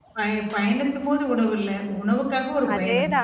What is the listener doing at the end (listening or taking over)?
taking over